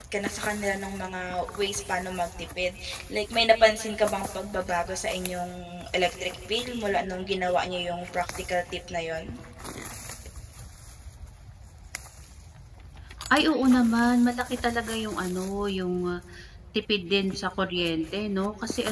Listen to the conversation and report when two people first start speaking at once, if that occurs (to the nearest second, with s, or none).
none